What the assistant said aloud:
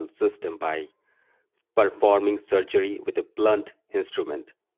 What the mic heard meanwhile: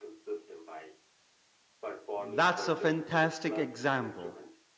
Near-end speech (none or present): present